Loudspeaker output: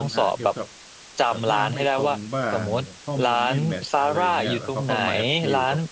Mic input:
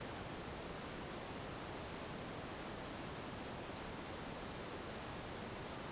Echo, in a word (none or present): none